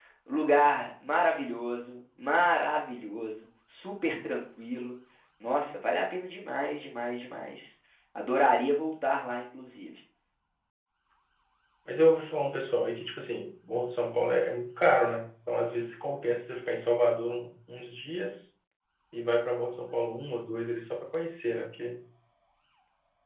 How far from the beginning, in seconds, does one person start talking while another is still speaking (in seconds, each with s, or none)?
none